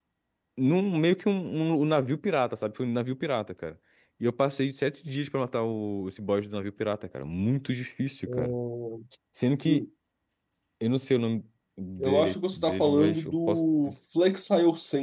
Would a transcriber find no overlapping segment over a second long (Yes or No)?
No